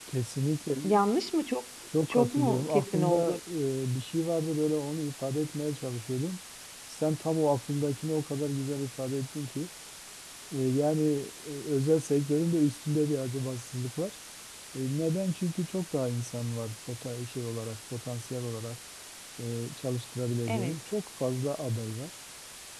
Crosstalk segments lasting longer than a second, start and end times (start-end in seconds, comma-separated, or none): 2.1-3.4